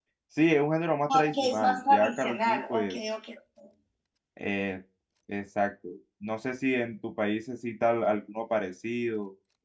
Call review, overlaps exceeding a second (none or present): present